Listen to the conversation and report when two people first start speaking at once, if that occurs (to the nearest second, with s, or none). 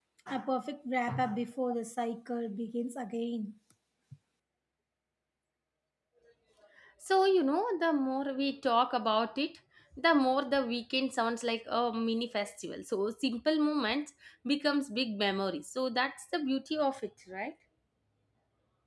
none